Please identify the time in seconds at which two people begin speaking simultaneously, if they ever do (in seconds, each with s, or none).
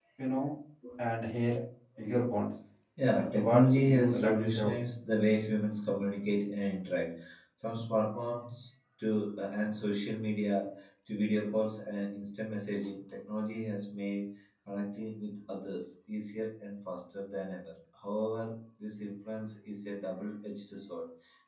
3.5 s